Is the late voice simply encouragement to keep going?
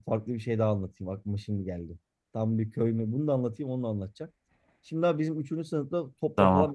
Yes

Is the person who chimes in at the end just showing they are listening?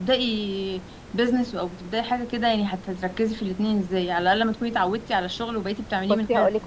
No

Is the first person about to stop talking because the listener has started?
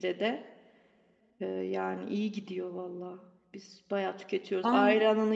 No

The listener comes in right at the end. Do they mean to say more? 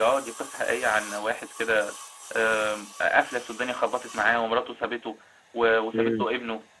No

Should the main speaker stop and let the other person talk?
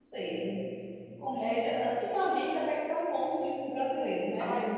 Yes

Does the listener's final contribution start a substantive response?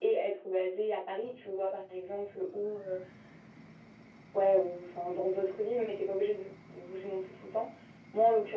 No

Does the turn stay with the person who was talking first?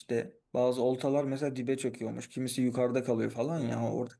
Yes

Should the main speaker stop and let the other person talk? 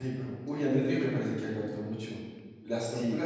Yes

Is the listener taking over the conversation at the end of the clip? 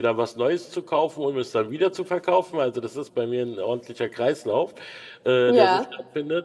No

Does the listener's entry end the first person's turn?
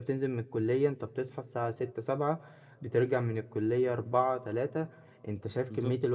No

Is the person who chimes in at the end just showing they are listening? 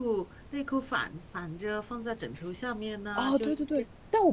No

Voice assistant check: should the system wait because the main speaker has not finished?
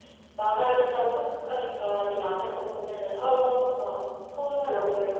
No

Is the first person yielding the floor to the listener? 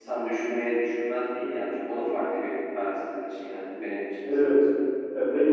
Yes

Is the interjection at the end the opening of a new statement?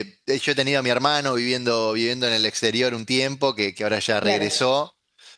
No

